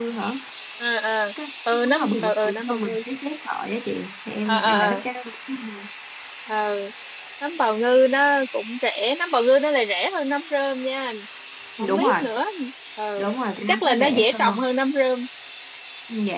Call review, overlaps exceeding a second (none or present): present